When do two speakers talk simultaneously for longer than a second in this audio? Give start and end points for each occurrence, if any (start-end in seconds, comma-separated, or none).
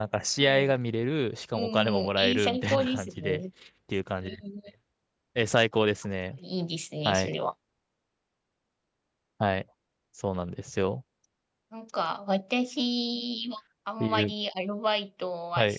1.5-3.4